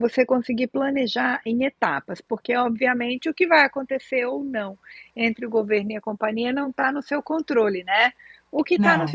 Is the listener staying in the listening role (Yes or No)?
Yes